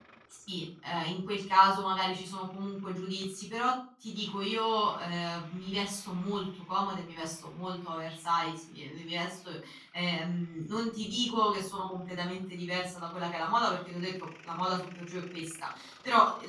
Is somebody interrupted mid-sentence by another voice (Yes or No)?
No